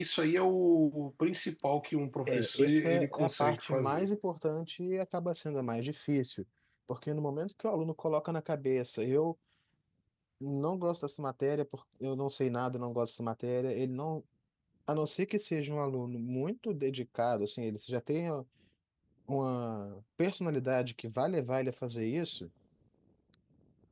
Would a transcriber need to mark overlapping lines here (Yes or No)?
Yes